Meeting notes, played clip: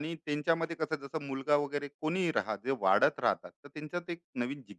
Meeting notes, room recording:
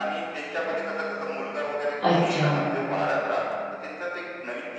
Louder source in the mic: user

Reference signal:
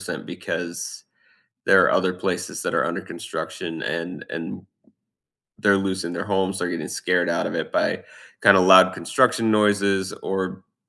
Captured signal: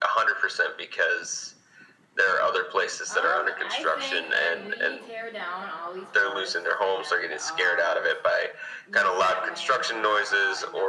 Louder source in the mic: echo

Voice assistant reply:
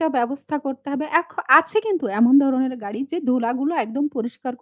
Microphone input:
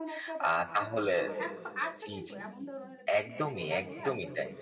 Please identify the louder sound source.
user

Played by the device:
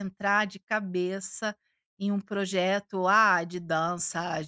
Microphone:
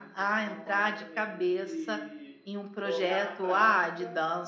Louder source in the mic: echo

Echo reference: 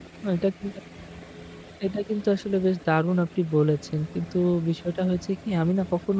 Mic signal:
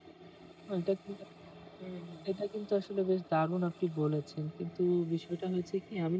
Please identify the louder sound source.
echo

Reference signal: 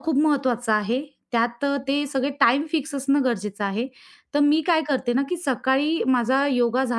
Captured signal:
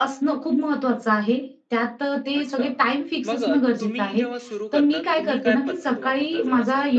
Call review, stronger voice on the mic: echo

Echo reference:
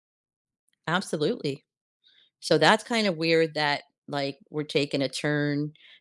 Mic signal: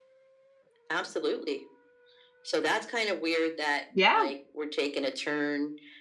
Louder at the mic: user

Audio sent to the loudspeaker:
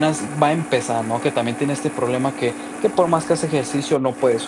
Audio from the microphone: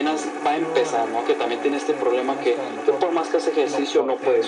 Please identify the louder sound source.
echo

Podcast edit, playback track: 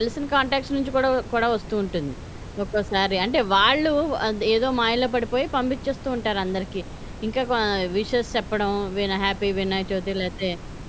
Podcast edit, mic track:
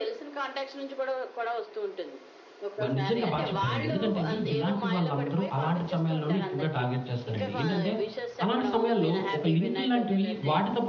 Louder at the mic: user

